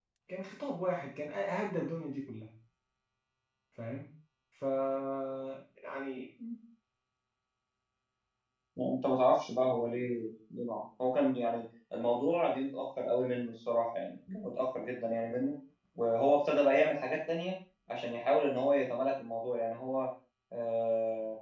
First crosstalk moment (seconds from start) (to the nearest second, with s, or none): none